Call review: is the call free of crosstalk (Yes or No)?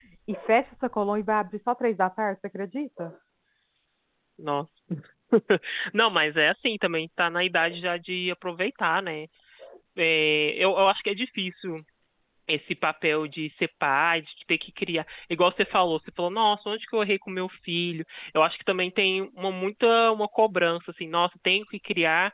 Yes